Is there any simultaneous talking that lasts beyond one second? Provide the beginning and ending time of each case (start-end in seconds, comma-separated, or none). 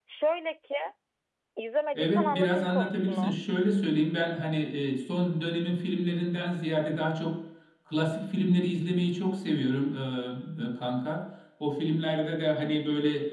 1.9-3.3